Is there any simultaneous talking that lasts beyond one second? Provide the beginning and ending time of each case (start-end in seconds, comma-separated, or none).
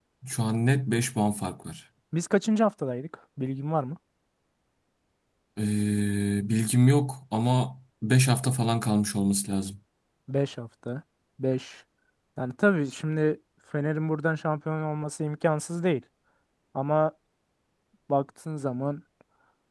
none